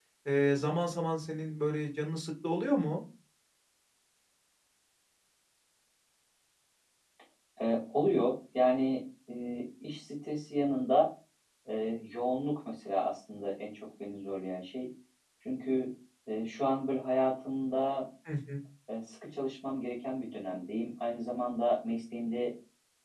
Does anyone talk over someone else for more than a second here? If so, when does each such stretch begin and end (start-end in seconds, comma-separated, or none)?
none